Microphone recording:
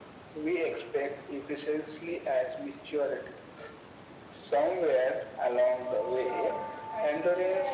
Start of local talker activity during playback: 6.1 s

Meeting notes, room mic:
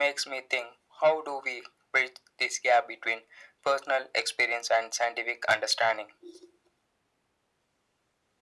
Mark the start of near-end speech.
none

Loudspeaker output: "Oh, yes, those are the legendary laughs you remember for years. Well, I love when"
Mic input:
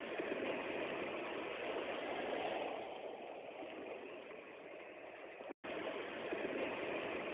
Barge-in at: none

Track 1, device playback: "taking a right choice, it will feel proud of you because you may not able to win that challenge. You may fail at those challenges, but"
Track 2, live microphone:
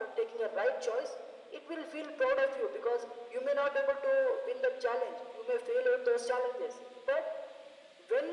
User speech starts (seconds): none

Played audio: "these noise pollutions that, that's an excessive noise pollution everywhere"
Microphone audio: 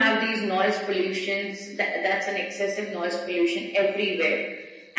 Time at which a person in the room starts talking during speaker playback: none

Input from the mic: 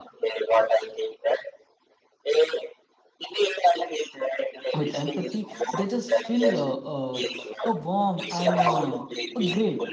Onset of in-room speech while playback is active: 4.7 s

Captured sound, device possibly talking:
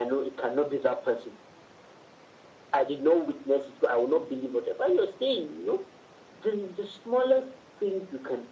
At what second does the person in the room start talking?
none

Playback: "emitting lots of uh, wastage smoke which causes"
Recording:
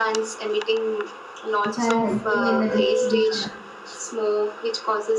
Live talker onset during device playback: 1.6 s

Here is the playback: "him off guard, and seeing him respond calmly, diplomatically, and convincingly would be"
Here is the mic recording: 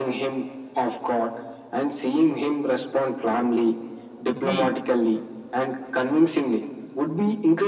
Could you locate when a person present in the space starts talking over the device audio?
4.3 s

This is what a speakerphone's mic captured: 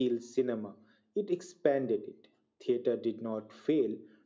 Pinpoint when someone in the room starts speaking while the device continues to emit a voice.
none

